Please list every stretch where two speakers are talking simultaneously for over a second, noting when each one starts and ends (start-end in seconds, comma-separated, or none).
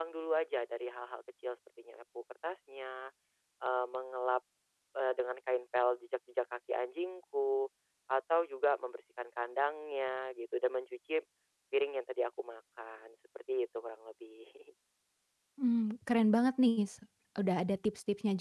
none